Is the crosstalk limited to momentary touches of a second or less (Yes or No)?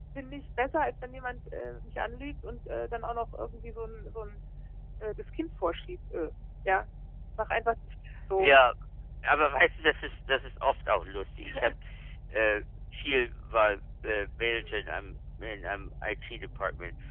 Yes